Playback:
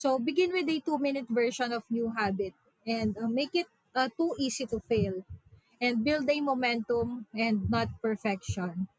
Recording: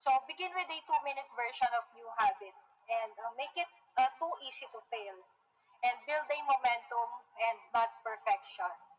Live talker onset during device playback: none

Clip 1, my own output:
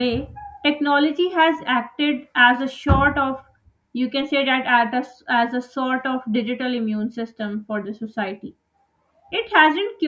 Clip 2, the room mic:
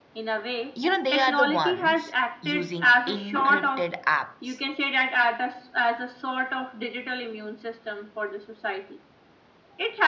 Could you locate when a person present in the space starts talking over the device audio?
0.7 s

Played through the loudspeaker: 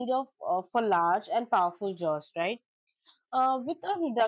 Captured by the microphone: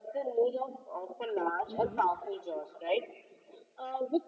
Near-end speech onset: 1.7 s

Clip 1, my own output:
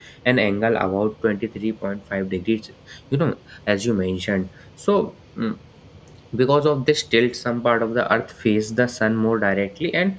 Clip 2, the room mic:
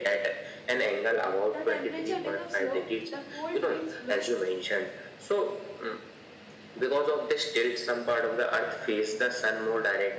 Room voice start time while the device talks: 1.5 s

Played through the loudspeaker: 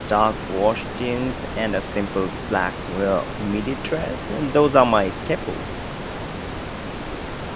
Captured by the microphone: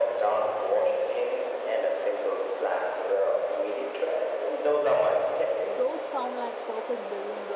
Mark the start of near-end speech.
5.7 s

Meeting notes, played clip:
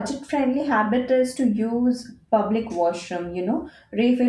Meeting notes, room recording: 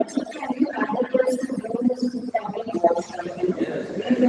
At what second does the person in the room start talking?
3.2 s

